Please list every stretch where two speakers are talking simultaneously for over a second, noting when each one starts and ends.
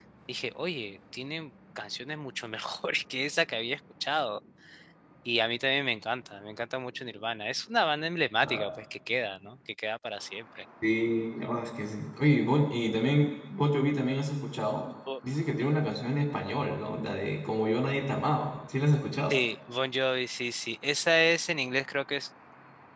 none

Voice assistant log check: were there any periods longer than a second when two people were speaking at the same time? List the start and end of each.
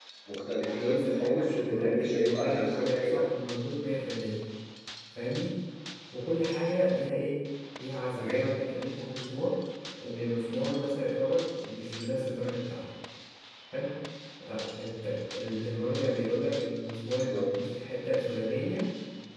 0.7-3.2

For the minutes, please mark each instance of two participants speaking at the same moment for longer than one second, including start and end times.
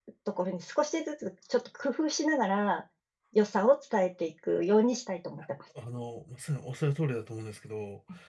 none

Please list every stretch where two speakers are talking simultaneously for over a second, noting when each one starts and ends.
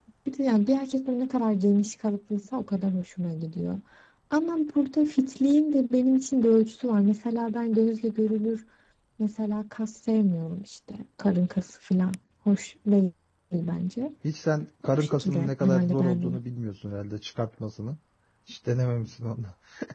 14.9-16.4

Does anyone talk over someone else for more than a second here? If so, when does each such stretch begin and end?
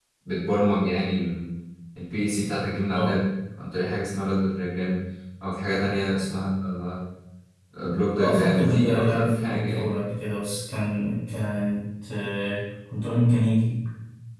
8.2-9.9

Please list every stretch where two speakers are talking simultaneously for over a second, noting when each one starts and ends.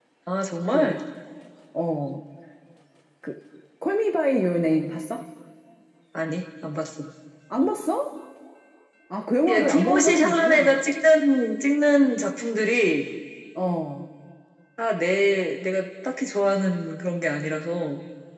9.5-10.8

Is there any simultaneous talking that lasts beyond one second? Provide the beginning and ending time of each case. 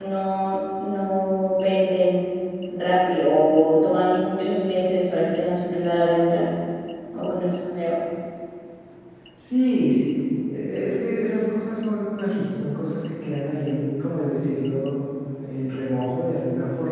none

